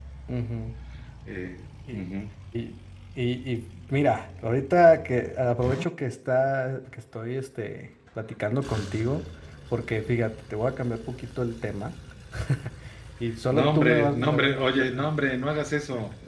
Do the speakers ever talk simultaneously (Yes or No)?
Yes